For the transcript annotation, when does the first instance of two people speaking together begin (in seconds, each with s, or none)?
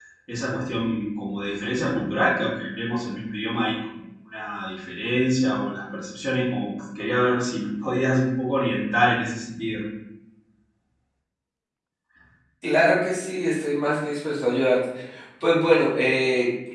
none